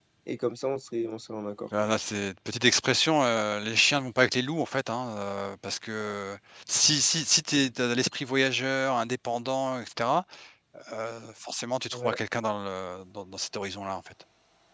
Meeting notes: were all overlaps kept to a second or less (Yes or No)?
Yes